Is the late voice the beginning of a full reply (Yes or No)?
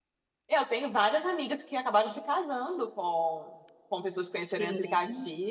No